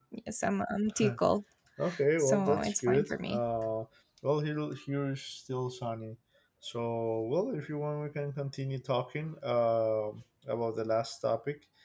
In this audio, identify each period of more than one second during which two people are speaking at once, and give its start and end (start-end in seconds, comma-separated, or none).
2.2-3.4